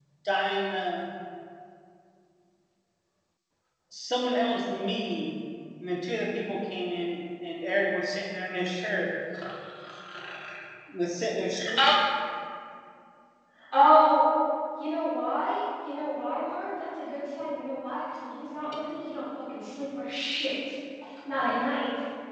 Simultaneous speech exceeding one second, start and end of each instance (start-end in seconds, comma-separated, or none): none